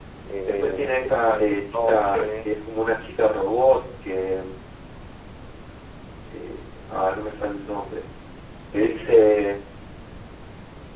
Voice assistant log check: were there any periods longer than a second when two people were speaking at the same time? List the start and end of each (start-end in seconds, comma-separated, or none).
0.6-2.5